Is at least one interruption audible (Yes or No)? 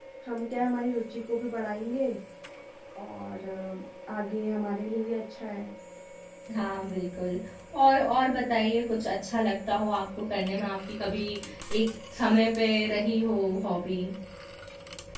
No